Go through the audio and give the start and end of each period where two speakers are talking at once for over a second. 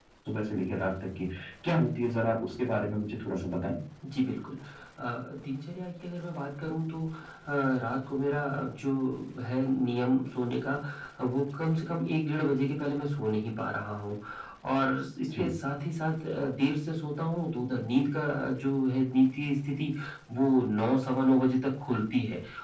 none

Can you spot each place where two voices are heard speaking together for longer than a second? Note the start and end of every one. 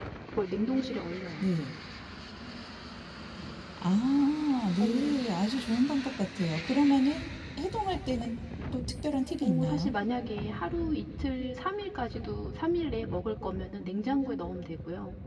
none

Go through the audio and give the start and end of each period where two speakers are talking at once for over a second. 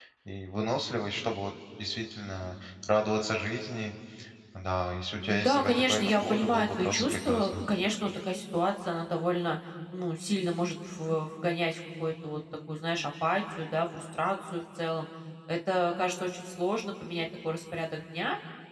5.2-7.5

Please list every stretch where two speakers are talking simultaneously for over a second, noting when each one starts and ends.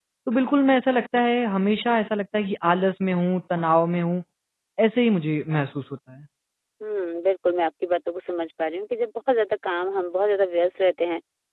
none

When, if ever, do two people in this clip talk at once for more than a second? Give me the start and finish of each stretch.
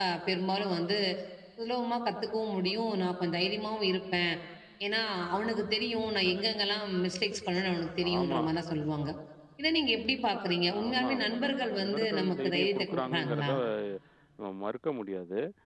10.8-13.5

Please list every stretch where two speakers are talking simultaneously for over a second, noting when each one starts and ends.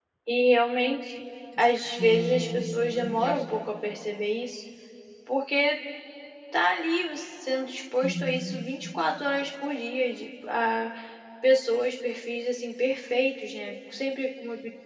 1.6-3.4

